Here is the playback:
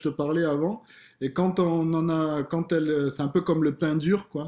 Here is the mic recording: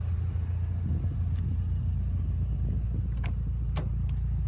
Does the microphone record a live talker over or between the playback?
No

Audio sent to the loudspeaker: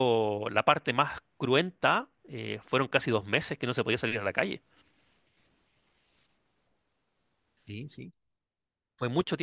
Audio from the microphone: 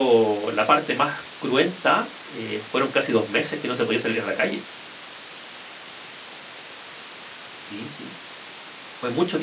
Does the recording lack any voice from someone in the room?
Yes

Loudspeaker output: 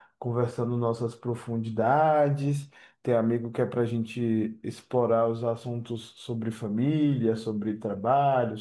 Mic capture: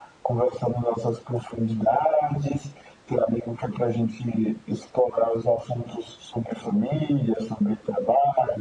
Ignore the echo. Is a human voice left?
No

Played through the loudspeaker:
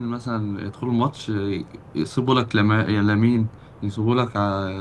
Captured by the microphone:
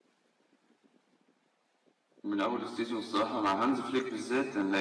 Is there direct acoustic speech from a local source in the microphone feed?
Yes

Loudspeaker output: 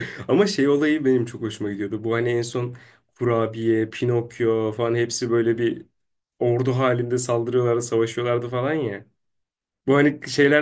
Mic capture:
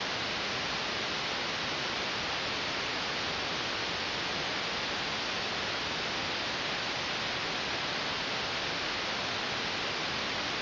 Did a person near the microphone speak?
No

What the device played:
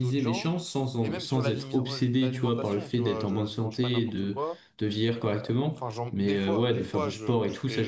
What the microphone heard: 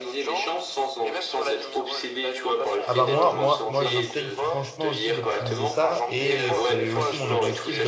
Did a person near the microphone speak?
Yes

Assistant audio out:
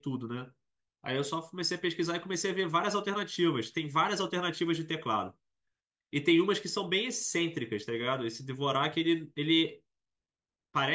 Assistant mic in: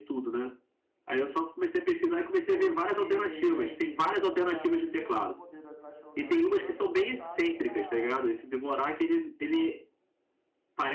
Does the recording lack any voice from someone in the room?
No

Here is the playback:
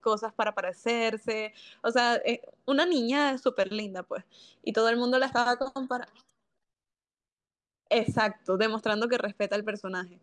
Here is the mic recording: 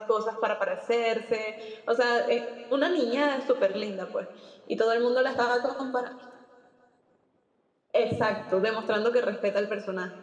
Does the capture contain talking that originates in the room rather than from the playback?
No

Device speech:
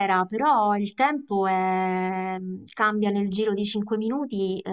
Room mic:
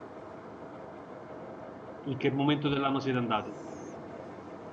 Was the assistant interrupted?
Yes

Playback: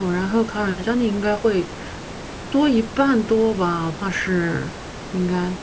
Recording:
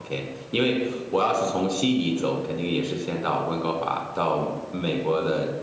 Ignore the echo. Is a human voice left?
Yes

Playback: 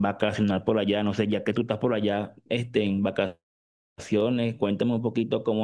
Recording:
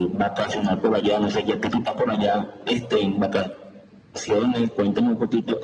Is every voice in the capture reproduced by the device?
Yes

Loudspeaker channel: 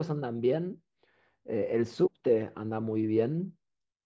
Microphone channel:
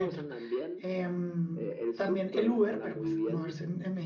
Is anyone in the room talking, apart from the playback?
Yes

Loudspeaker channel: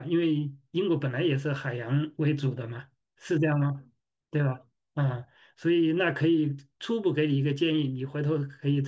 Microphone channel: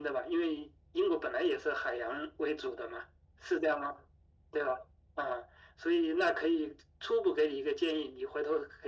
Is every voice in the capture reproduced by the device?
Yes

